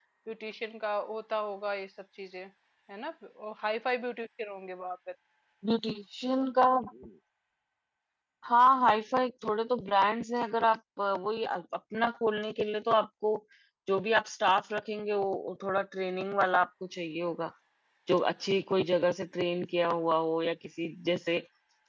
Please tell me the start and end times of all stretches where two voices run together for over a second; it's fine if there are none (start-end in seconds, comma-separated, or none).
none